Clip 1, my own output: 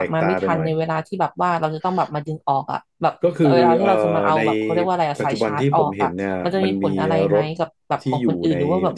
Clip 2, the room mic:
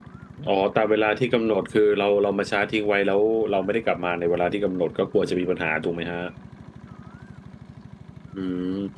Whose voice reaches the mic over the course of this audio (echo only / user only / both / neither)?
user only